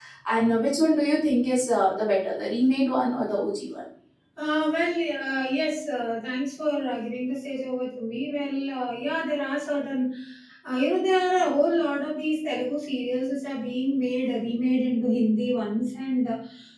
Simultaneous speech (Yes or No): No